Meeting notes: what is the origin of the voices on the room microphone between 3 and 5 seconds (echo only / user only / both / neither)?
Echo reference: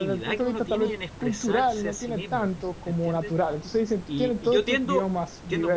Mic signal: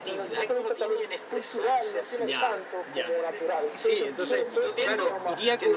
both